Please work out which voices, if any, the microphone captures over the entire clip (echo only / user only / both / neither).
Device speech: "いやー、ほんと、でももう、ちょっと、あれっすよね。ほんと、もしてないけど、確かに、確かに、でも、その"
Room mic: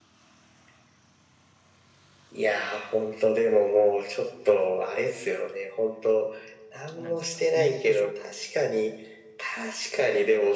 both